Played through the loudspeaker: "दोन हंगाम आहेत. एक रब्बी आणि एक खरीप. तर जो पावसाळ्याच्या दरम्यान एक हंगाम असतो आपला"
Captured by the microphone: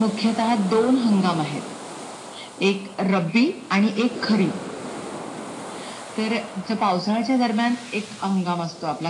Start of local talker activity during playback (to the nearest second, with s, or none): none